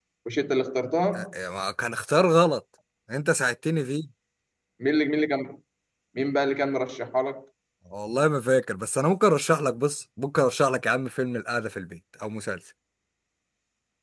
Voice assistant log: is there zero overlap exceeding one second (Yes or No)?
Yes